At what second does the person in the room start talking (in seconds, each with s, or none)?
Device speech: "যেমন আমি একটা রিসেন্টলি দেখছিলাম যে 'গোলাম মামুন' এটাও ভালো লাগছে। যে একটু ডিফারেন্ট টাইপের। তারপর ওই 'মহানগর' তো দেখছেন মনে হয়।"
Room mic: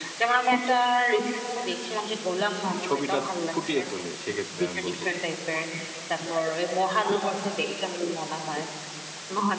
2.8 s